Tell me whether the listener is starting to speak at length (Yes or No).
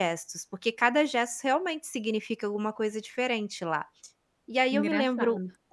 No